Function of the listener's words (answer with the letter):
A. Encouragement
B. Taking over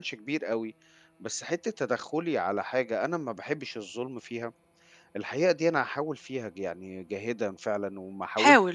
A